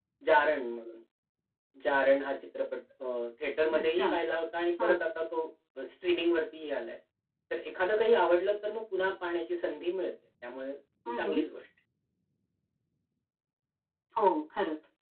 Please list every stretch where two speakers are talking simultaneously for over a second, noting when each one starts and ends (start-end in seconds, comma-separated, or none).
none